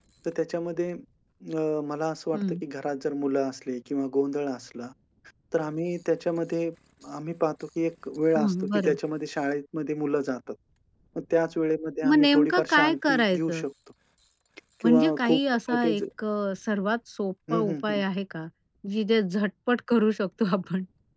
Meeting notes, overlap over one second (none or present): present